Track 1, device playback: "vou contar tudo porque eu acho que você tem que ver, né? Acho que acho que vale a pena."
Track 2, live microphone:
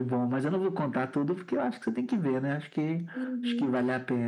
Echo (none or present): present